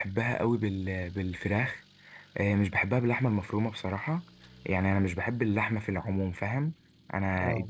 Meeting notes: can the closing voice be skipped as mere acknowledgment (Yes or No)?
Yes